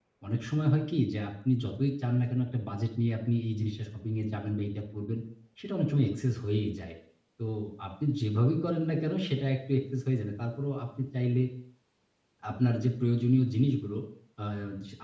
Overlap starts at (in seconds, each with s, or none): none